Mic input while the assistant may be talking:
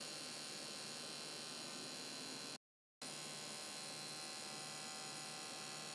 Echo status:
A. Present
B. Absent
B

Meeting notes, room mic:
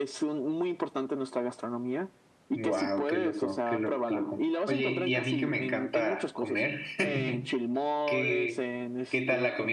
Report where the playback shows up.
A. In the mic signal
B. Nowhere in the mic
A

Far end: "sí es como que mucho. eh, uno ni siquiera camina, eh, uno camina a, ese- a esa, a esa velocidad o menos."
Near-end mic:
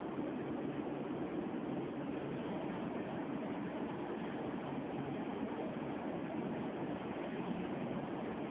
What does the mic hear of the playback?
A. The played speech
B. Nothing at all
B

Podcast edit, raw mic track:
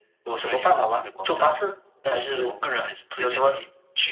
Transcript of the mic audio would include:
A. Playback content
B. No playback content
A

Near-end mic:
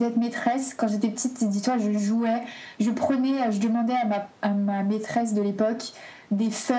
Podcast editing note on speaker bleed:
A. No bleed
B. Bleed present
B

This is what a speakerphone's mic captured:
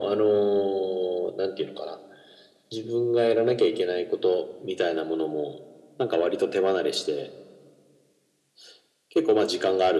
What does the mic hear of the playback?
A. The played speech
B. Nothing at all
A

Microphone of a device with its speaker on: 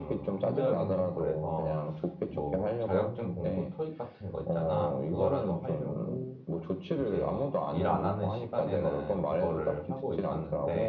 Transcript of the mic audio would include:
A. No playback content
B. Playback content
B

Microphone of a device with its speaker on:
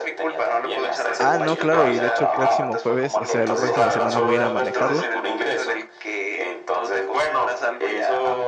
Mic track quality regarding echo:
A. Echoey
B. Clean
A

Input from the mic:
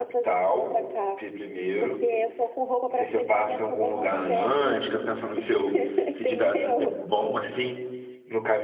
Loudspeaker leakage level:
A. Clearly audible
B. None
A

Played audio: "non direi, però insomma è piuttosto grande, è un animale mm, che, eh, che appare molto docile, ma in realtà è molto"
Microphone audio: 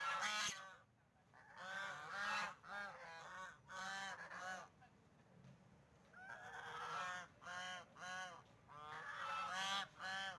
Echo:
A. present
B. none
B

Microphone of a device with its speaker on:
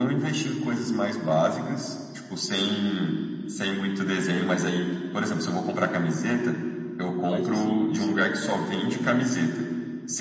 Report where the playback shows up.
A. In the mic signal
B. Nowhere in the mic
A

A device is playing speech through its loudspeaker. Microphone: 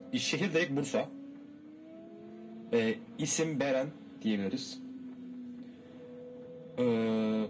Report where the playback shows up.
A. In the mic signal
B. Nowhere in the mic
A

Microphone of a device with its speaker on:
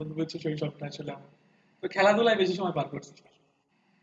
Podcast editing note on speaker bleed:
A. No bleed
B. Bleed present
A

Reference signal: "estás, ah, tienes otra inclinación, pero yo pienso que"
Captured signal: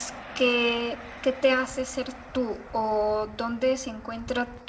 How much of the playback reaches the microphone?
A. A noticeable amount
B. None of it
B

